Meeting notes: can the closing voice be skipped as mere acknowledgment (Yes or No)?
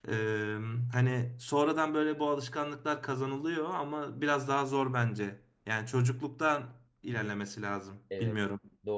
No